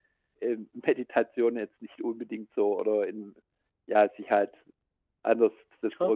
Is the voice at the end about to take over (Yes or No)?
No